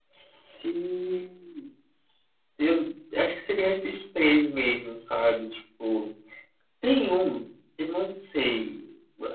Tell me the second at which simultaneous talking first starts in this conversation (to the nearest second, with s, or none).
none